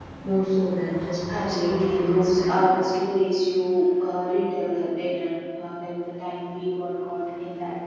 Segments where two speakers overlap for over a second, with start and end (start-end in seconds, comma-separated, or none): 1.4-2.7